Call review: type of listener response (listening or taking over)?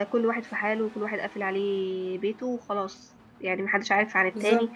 listening